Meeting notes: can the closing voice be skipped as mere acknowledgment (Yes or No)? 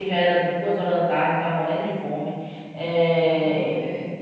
Yes